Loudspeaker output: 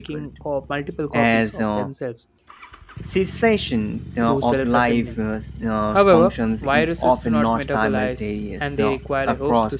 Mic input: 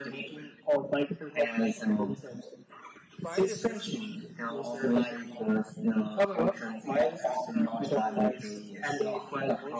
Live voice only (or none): viruses